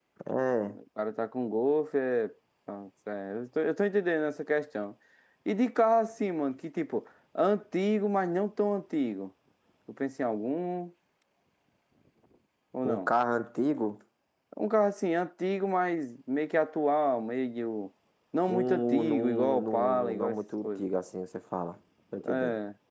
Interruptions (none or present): present